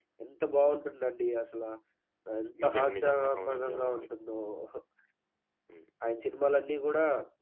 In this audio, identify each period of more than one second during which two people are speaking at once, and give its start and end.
2.6-4.0

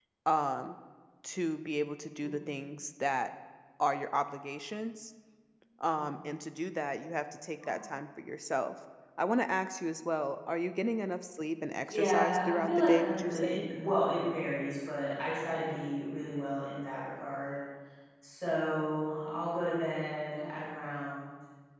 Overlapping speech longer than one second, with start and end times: 11.8-13.7

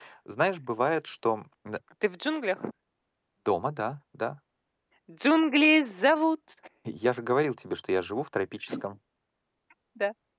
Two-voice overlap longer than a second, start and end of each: none

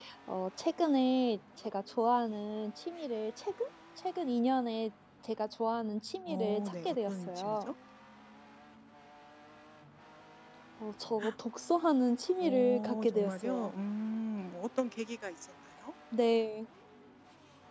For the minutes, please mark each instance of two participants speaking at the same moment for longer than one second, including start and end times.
6.3-7.7, 12.4-13.7

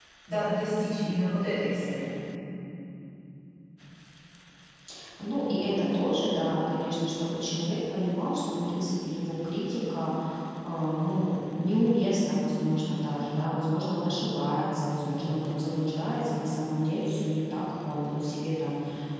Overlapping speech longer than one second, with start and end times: none

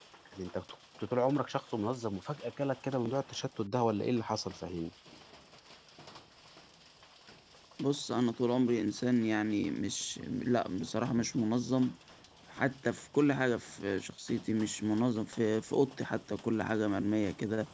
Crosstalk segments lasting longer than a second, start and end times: none

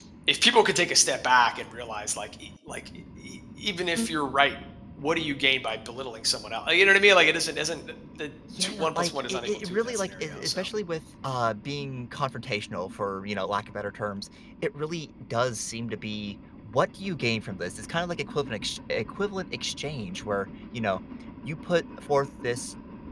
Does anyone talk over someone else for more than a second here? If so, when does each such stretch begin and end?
8.6-10.6

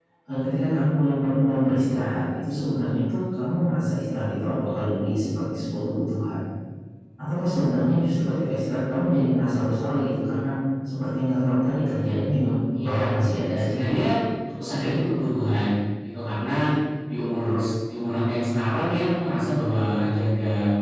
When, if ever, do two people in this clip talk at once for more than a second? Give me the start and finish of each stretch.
none

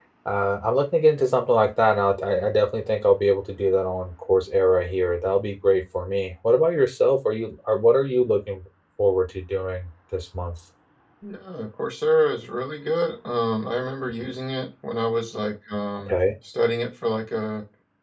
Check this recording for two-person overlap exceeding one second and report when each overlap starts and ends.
none

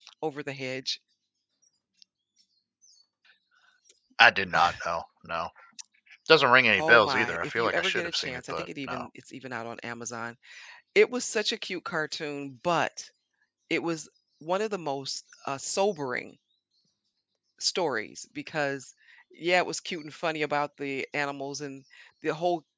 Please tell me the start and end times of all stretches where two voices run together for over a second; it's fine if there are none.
6.8-9.1

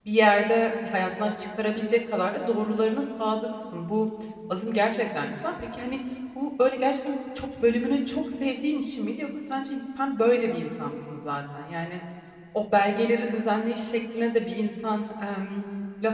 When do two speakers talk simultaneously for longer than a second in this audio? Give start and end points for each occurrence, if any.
none

